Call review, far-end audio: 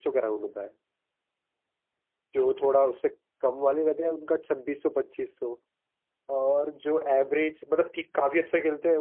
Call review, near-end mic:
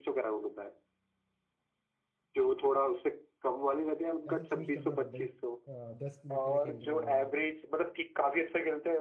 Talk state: both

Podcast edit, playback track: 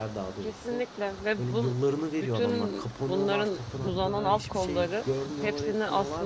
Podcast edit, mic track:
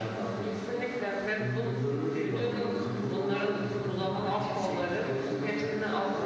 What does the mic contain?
echo only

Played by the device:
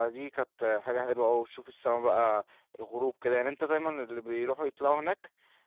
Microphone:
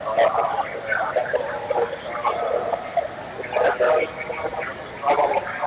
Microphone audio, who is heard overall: echo only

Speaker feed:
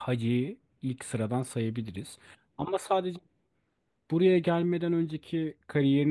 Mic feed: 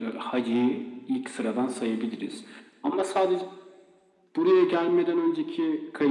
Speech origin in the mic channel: echo only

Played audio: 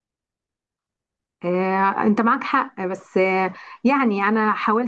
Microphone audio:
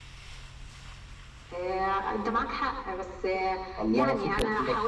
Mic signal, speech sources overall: both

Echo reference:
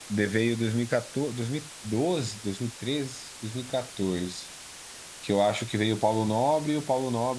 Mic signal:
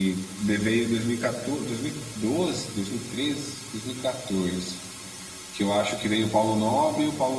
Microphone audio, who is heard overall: echo only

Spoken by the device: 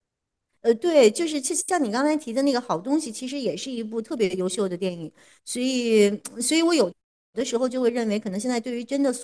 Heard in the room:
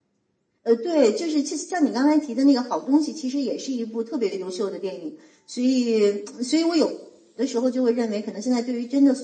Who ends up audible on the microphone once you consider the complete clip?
echo only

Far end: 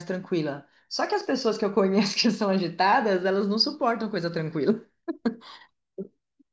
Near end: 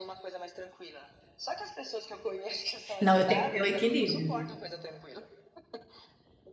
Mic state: both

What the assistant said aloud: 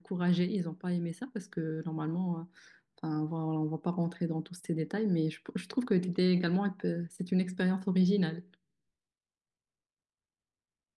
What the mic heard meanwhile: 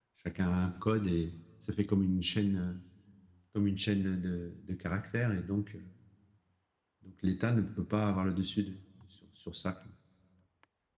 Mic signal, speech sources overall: user only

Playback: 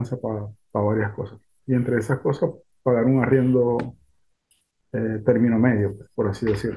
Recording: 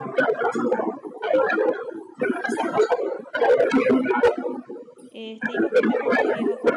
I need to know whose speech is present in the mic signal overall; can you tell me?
both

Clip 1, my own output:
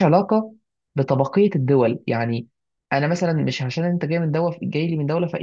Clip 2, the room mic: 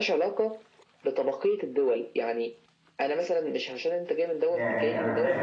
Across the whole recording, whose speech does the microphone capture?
both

